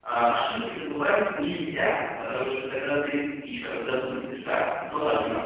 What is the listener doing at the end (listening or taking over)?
listening